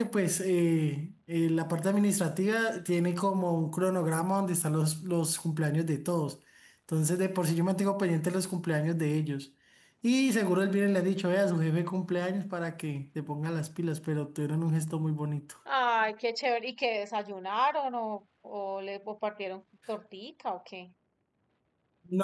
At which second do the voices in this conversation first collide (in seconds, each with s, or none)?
none